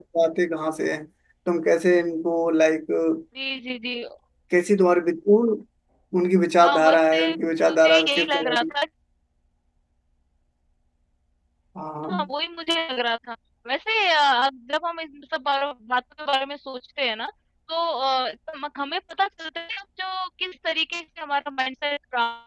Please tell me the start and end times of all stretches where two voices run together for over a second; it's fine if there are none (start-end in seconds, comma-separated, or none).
6.6-8.6